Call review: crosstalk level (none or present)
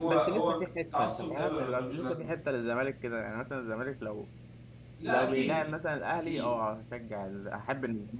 present